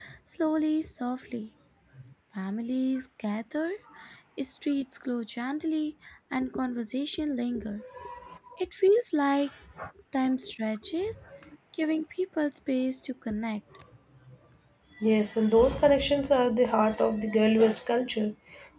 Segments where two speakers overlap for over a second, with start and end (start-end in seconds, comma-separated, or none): none